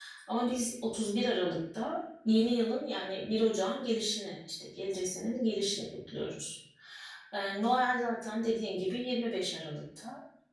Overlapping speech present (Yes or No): No